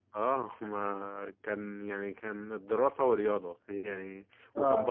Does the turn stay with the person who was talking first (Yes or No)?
Yes